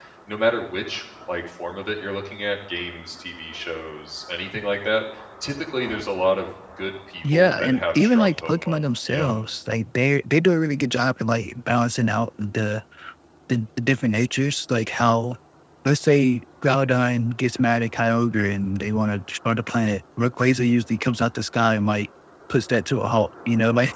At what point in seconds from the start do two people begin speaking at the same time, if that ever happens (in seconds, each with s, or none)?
7.2 s